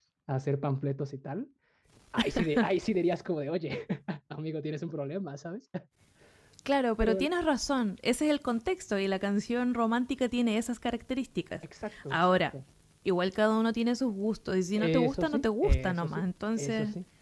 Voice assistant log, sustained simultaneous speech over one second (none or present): present